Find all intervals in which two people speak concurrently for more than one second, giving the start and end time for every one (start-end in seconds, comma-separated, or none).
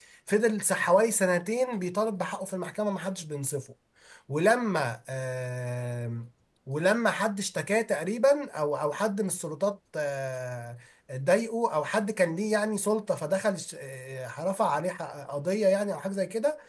none